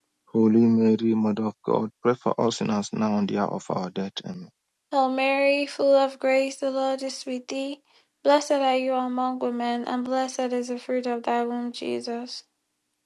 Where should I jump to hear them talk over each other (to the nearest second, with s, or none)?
none